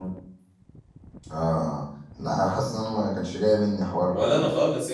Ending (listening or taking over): taking over